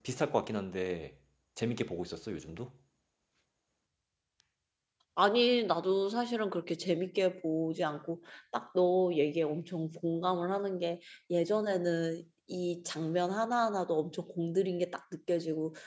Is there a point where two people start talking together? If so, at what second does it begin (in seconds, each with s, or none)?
none